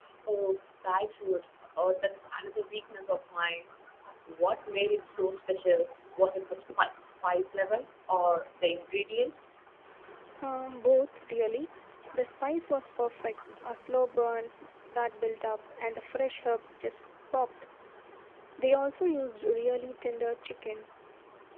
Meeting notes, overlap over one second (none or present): none